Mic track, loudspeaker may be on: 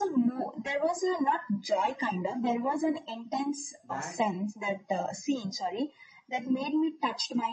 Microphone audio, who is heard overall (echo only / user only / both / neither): both